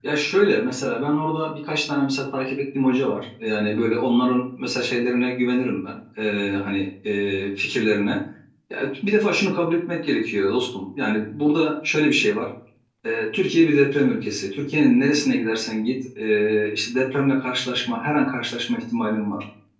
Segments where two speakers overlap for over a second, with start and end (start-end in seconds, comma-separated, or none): none